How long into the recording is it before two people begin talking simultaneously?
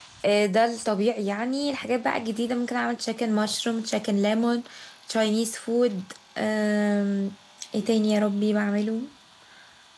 none

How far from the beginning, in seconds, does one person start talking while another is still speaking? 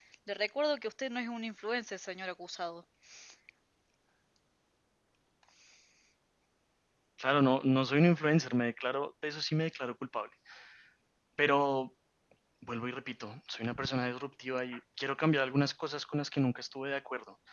none

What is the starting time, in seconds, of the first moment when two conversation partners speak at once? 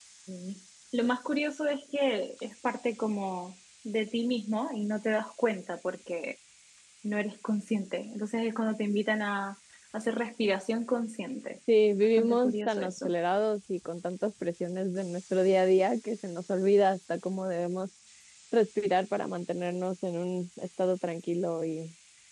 11.9 s

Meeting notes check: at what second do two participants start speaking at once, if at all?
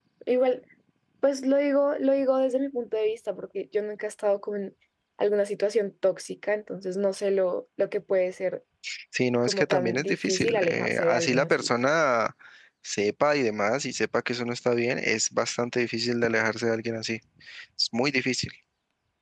9.4 s

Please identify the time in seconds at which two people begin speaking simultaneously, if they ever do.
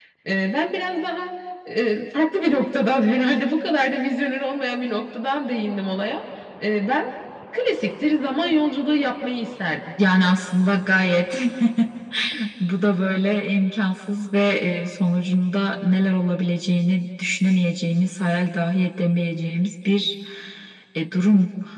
none

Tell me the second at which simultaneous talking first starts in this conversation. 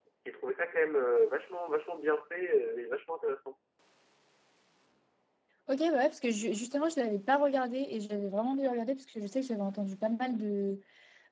none

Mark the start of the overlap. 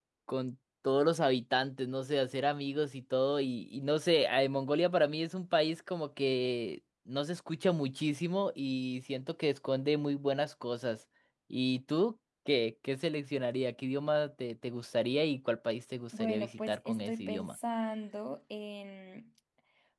16.1 s

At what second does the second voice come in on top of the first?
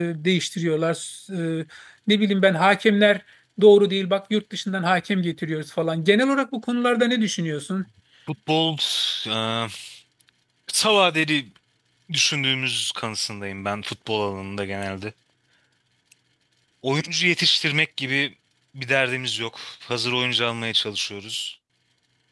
none

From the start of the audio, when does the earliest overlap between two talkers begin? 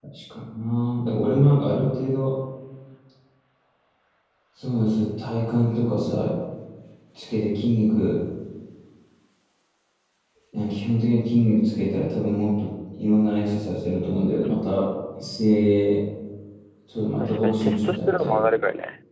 17.2 s

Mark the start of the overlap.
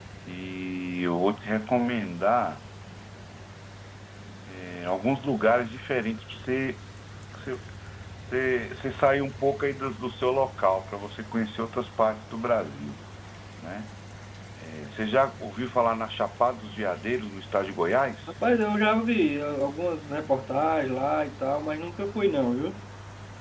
none

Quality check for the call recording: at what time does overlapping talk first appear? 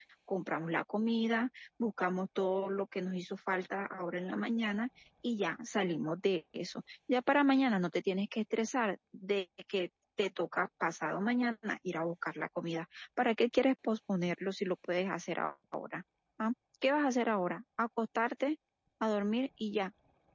none

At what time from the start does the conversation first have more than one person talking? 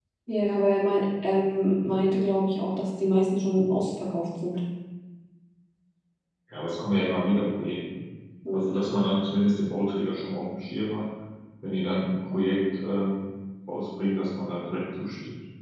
none

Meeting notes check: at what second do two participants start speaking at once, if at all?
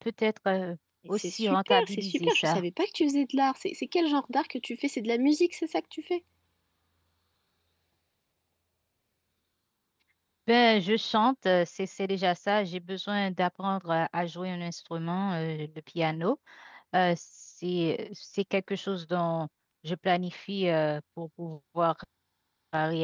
1.1 s

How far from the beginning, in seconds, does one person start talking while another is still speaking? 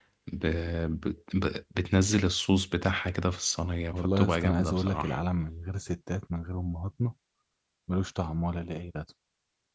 3.9 s

